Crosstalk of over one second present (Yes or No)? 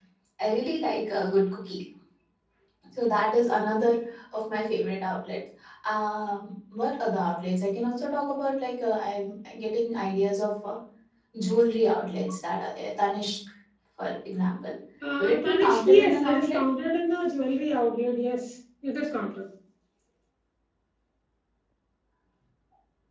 Yes